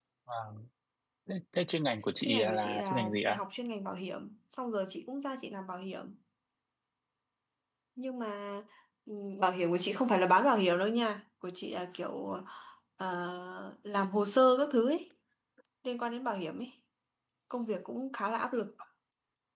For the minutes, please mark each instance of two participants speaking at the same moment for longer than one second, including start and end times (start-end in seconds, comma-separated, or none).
2.2-3.4